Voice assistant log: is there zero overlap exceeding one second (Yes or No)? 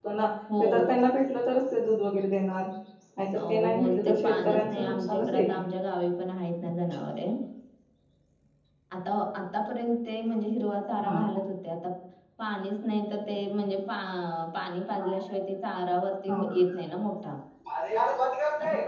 No